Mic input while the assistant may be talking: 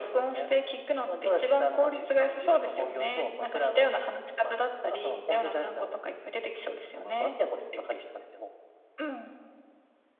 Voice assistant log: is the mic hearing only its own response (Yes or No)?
Yes